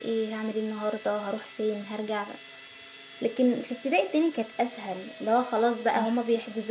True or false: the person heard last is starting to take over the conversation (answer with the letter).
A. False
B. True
A